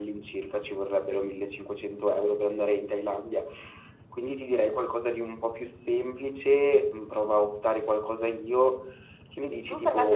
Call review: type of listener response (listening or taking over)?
taking over